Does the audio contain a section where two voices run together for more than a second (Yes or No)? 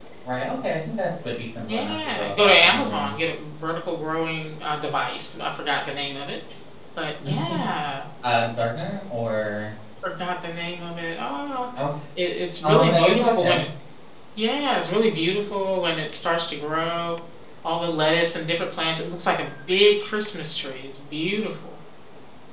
Yes